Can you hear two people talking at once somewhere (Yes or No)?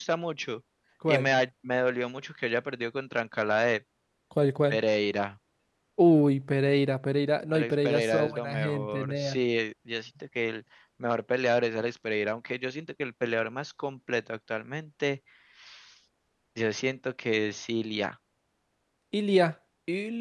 Yes